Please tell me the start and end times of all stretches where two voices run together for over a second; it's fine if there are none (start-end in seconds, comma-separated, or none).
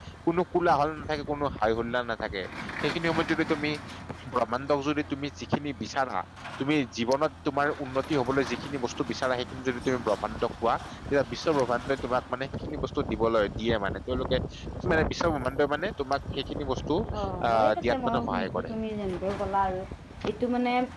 17.5-18.7